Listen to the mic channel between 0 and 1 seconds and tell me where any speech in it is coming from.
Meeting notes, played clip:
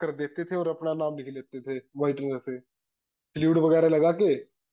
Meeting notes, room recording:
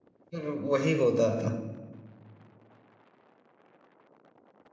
user only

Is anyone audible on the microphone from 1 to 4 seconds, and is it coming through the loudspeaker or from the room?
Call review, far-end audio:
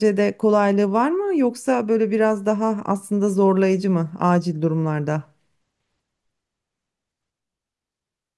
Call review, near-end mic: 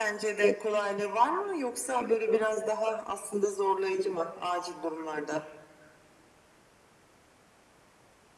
echo only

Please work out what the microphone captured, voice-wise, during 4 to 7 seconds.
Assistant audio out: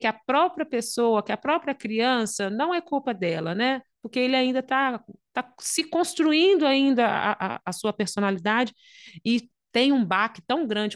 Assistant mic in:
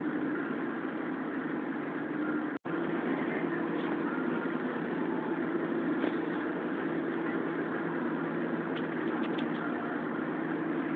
neither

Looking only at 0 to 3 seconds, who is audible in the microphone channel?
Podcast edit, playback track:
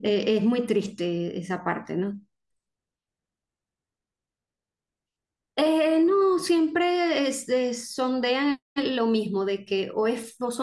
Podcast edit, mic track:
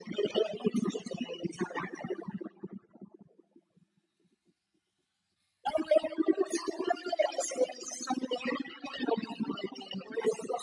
echo only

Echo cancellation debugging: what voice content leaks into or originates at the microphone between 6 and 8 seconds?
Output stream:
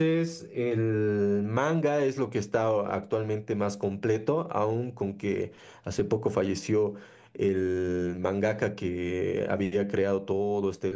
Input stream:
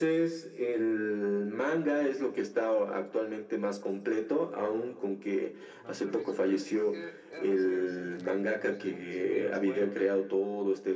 both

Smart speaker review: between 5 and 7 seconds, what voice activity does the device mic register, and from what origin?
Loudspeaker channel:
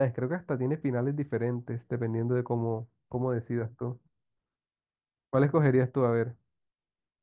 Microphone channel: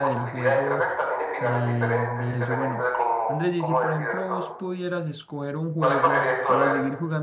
both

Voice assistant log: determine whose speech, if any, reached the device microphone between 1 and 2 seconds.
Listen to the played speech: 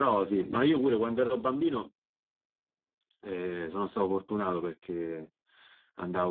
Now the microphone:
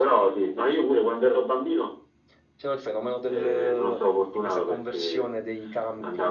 echo only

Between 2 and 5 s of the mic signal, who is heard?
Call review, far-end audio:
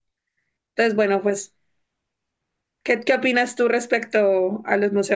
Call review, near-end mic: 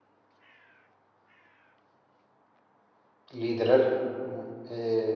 user only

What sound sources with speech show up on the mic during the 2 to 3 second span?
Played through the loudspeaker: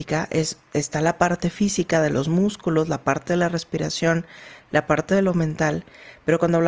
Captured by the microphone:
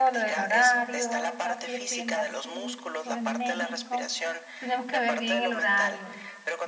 both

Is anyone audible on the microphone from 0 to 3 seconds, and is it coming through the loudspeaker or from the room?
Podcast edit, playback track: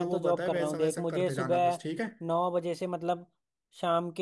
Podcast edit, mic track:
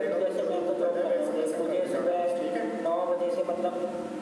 echo only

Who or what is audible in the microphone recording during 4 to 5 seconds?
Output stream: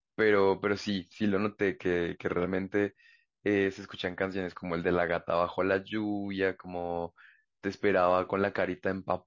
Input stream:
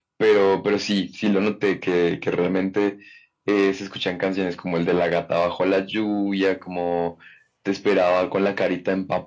echo only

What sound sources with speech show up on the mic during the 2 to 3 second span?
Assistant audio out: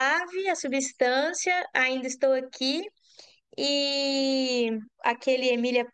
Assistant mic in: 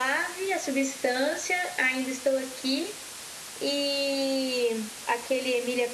echo only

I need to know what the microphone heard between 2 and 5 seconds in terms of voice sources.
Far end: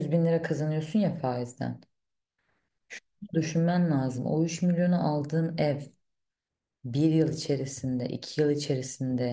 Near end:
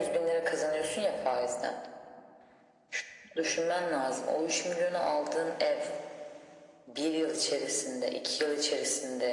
echo only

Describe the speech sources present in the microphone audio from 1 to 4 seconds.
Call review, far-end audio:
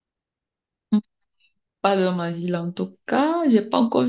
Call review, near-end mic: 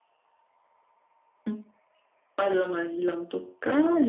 echo only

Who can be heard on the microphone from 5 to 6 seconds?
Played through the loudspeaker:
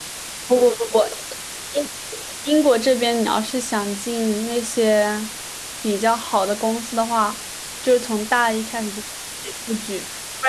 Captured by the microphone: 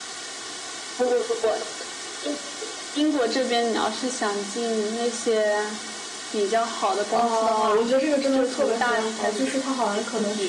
echo only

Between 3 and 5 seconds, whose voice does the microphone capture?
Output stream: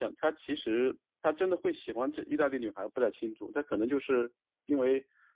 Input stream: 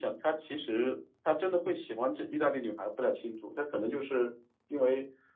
echo only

